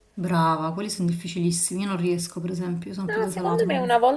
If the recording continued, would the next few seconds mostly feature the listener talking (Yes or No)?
Yes